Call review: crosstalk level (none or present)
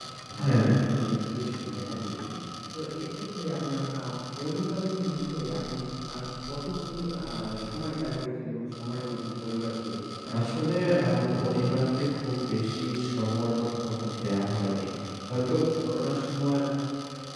present